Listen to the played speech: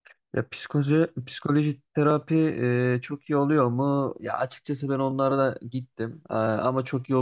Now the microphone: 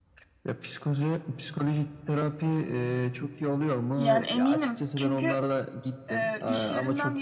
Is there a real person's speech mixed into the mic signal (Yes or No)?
Yes